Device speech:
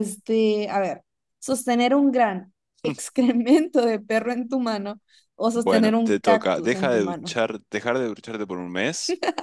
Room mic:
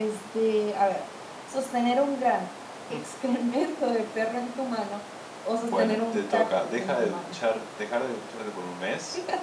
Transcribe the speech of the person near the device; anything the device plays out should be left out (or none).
none